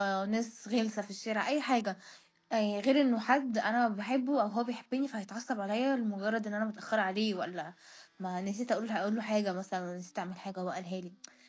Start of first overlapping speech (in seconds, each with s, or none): none